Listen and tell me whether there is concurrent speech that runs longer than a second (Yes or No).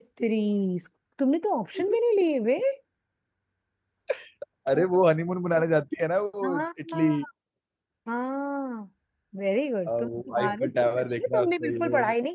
Yes